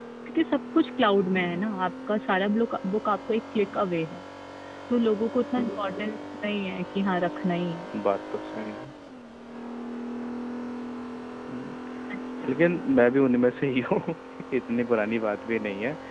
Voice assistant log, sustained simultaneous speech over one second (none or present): none